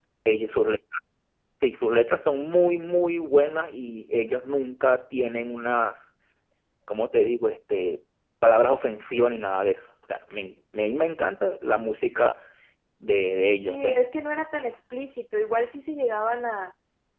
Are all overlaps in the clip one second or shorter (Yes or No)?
Yes